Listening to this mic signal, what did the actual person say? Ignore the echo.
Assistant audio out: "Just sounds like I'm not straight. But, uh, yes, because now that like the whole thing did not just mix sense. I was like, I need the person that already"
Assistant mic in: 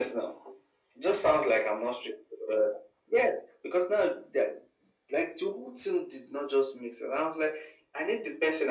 none

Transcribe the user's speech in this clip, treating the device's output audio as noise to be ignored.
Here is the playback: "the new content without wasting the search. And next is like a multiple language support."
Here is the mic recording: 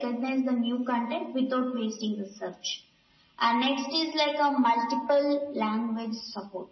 none

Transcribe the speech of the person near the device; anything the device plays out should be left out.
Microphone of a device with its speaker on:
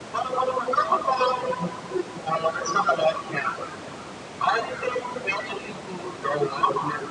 none

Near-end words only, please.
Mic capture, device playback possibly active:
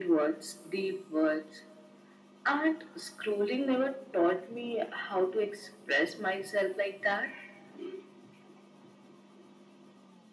none

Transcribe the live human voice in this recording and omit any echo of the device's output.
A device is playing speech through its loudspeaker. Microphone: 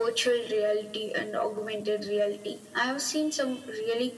none

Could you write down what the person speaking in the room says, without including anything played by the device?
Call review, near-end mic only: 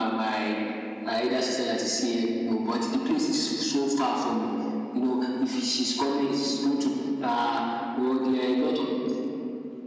none

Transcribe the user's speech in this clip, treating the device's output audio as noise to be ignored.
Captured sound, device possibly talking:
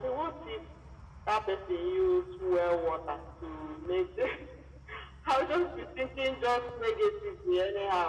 none

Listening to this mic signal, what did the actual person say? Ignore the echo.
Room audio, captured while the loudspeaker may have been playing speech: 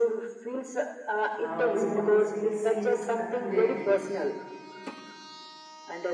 uh, we want to feel seen accurately

